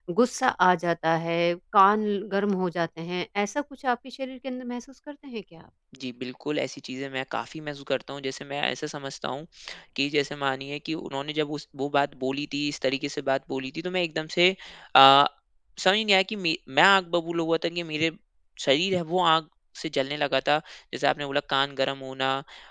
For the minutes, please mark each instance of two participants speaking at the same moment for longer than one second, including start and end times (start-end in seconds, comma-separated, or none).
none